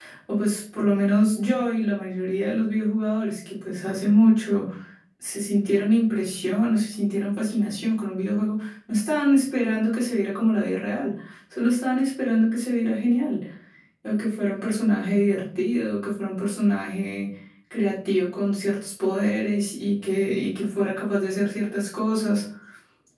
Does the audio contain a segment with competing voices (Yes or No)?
No